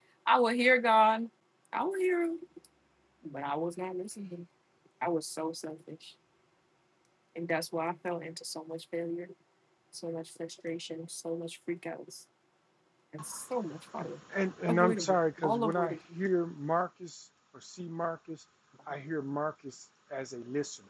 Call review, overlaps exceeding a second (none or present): present